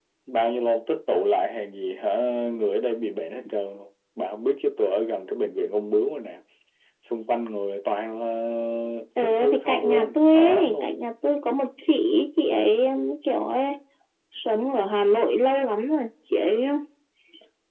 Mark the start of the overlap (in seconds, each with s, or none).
9.2 s